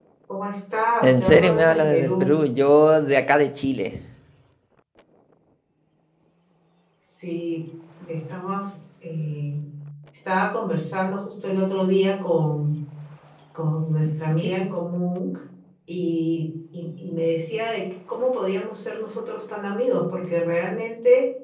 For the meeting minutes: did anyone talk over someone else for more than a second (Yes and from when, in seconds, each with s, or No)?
Yes, from 1.0 s